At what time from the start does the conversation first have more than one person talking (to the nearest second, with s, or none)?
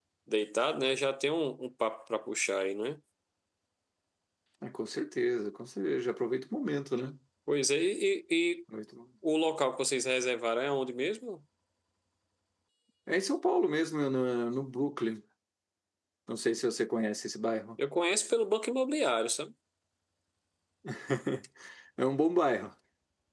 none